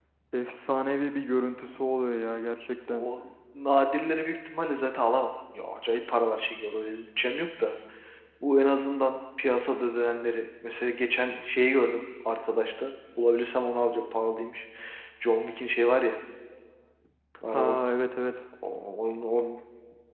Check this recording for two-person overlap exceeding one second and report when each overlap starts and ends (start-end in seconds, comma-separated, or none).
none